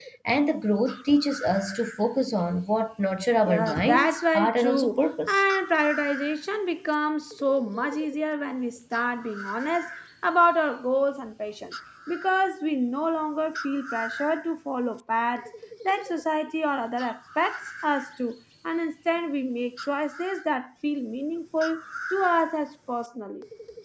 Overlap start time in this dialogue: 3.5 s

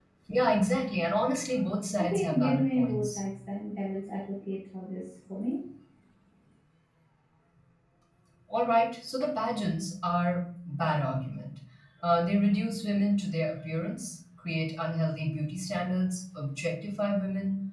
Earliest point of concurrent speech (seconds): 2.0 s

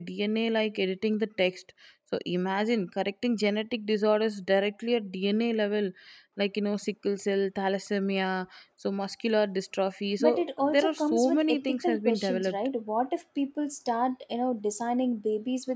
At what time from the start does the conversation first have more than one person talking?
10.2 s

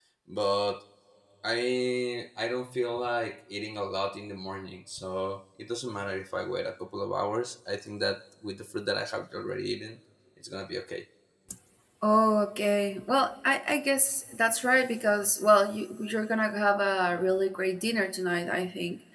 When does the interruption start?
none

